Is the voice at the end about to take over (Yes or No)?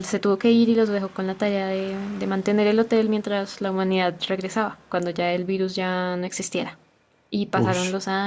No